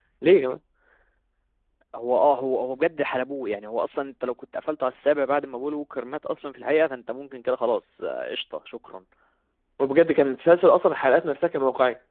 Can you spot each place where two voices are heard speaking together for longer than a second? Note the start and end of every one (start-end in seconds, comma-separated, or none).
none